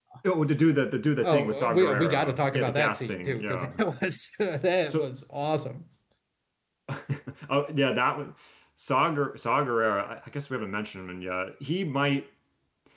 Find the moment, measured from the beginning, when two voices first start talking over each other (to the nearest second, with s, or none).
1 s